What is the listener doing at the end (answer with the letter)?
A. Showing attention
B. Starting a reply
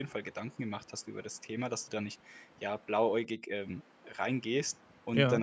A